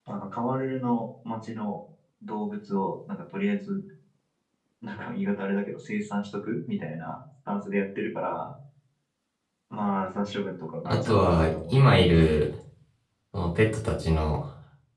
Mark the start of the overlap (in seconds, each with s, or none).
10.8 s